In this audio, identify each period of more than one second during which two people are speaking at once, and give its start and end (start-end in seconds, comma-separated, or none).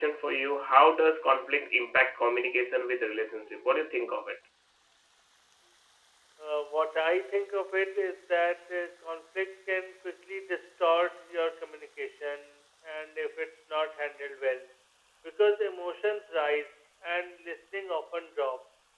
none